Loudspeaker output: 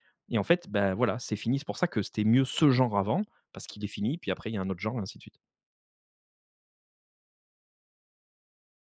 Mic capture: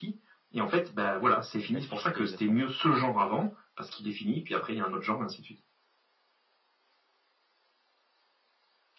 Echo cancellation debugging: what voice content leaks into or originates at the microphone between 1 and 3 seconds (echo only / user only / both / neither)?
both